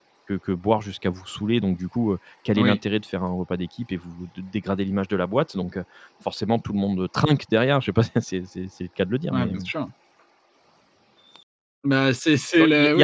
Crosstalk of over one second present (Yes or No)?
No